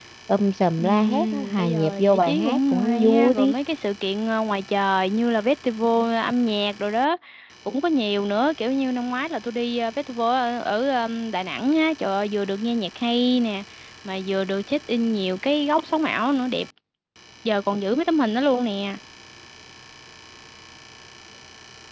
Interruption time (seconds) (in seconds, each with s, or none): 0.8 s